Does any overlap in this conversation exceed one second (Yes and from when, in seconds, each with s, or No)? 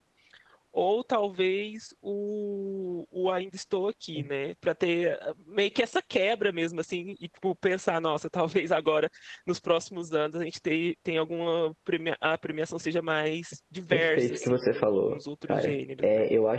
Yes, from 13.9 s